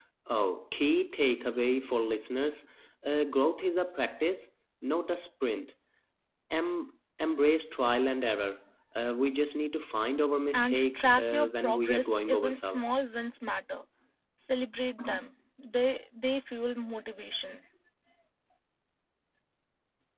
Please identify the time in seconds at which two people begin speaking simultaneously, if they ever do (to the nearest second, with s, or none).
11 s